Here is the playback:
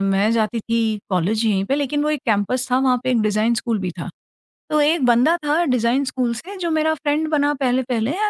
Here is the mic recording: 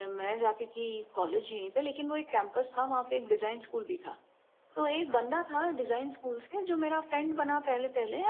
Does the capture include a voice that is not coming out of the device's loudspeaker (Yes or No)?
No